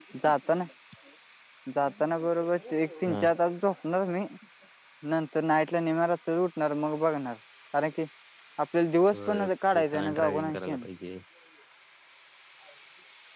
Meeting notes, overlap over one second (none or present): present